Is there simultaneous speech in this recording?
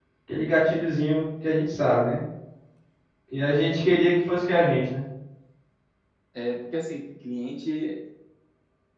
No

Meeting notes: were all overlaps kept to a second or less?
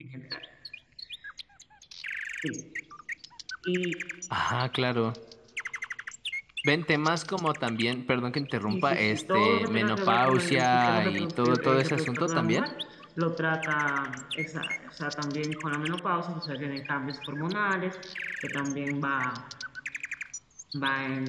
No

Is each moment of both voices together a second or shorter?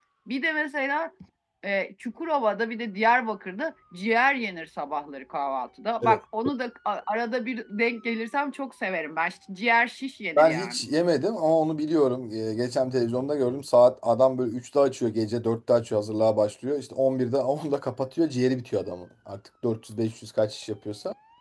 Yes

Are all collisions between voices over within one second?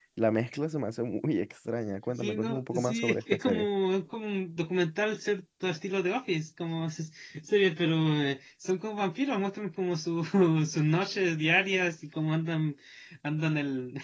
No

